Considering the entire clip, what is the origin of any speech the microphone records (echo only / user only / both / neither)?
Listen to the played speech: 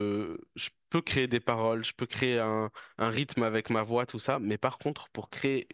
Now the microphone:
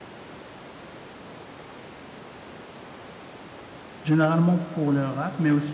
user only